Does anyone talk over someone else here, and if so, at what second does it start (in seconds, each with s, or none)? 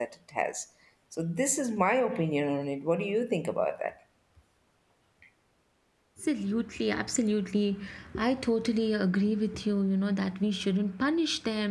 none